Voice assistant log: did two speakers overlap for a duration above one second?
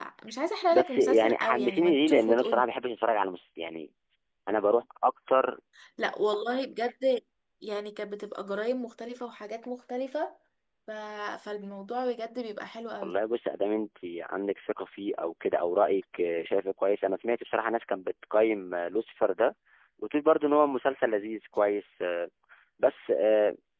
Yes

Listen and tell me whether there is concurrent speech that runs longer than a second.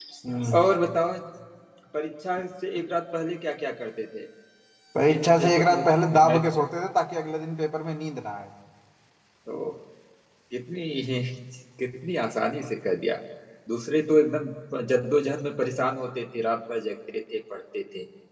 Yes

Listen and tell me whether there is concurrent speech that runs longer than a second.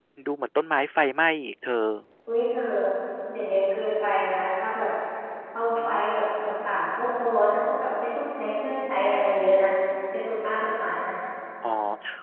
No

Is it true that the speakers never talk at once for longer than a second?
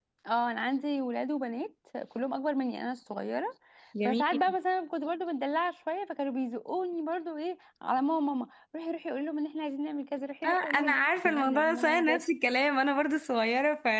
No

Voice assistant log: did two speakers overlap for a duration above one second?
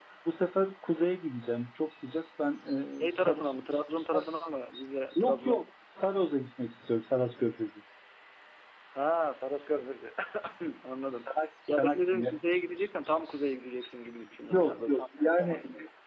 Yes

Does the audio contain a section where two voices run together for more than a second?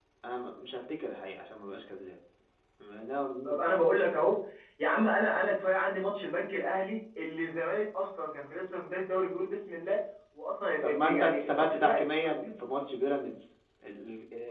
Yes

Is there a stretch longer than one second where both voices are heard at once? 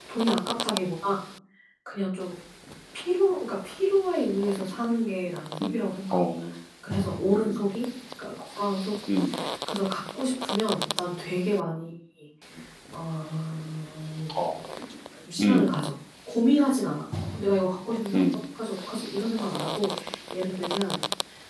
No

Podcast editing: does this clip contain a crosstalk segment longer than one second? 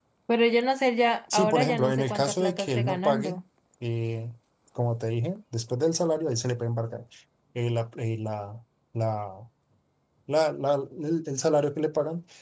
Yes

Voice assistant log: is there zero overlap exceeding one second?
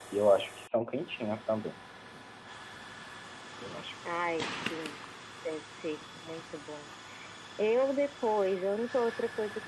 Yes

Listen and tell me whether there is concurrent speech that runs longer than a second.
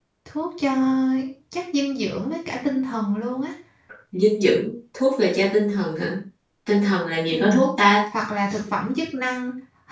No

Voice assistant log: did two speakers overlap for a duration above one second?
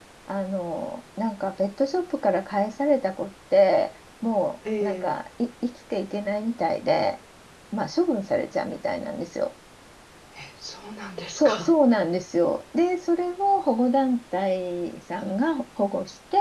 No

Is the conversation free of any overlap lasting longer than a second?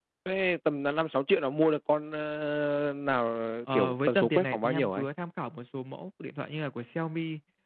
No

